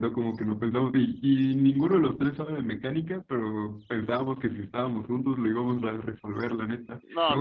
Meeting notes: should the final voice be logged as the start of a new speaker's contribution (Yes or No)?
No